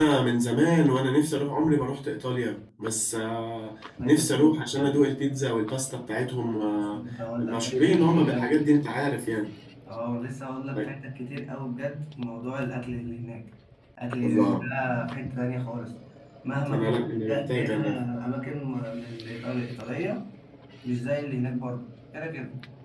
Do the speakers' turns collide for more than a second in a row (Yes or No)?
Yes